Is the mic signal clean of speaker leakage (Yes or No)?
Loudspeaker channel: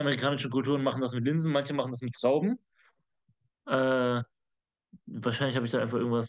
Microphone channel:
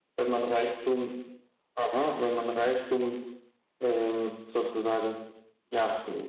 Yes